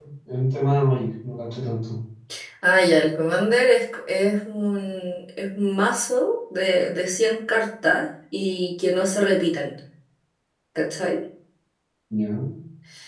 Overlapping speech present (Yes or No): No